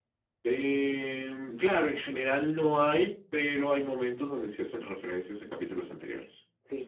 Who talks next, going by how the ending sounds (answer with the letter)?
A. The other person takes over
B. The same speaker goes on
A